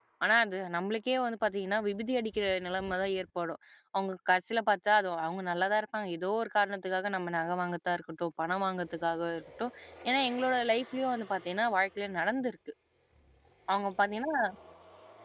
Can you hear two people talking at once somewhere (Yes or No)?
No